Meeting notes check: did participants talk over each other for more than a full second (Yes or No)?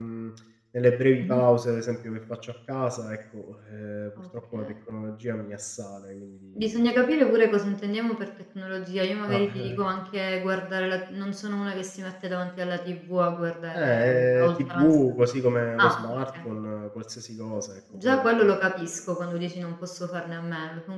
Yes